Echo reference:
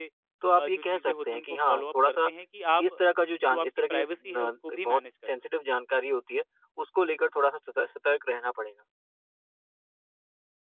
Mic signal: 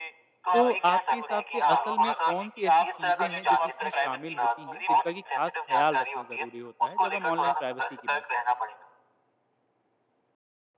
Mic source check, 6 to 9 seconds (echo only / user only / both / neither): both